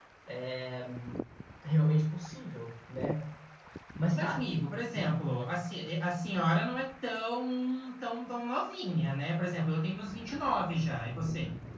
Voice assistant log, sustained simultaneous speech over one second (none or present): none